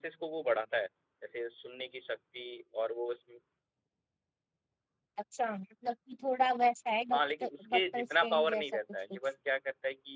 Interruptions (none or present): present